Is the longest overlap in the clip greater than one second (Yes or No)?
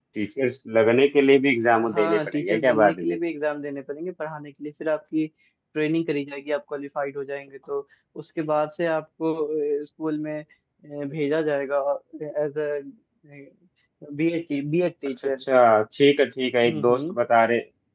Yes